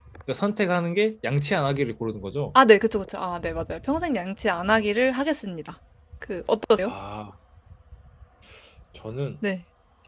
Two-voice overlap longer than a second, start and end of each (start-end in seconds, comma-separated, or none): none